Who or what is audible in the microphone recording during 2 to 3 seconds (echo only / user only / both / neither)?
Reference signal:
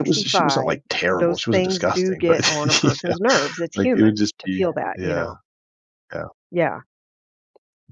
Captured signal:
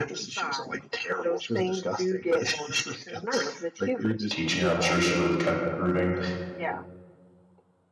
echo only